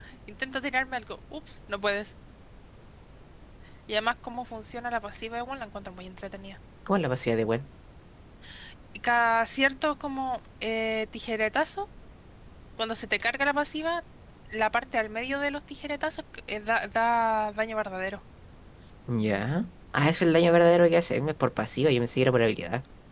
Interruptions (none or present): none